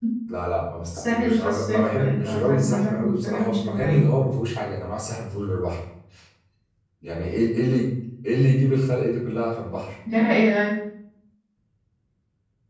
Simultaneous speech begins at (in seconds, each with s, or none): 0.9 s